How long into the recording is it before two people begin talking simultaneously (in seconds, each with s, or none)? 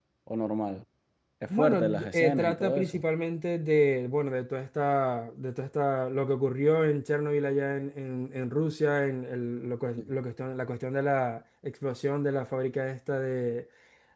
1.5 s